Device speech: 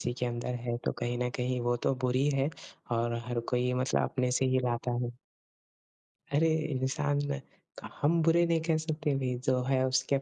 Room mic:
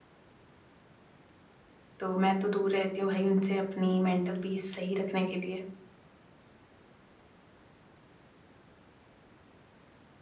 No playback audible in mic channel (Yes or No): Yes